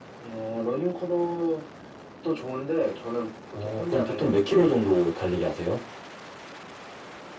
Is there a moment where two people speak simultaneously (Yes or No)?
Yes